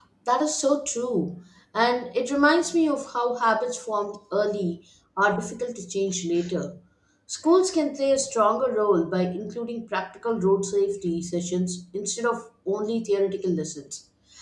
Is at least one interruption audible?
No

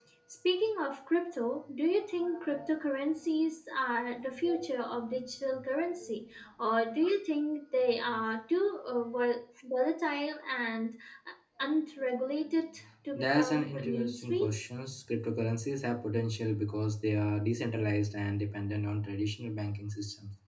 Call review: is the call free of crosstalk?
No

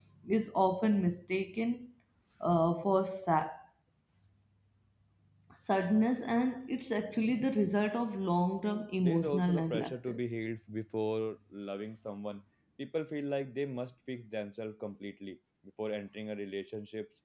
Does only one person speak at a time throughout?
No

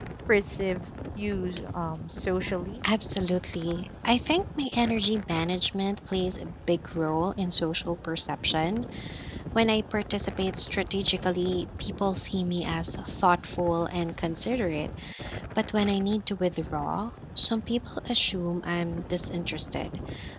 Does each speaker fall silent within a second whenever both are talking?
Yes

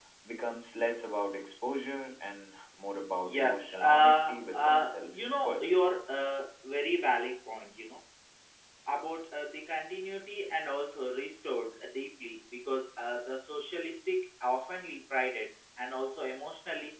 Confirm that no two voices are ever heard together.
No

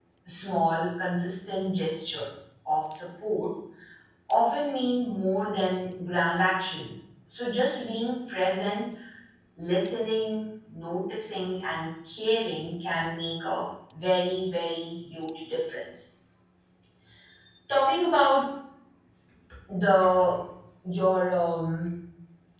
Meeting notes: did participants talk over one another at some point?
No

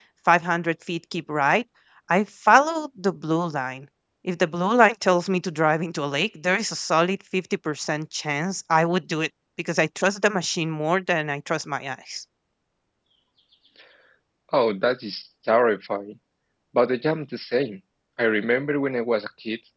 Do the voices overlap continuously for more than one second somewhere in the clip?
No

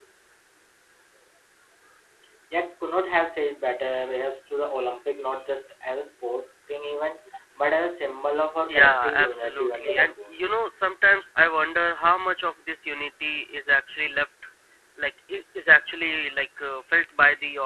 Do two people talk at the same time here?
Yes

